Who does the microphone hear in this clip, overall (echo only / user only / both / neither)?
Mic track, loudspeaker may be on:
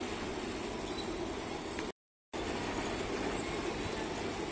neither